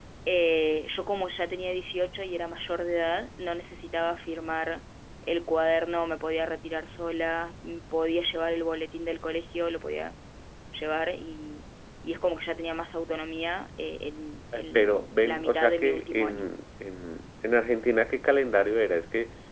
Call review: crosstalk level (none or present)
present